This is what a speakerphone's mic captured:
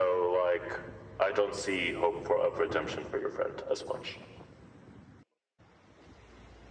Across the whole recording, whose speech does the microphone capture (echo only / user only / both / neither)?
echo only